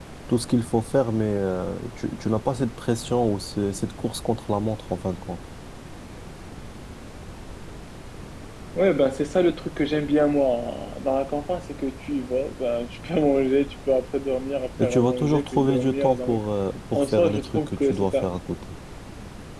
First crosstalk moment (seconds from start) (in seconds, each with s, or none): 14.8 s